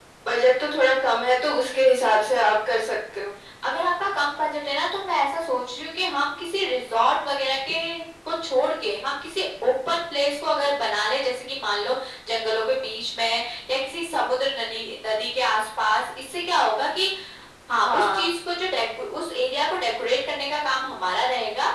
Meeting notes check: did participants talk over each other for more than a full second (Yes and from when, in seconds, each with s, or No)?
No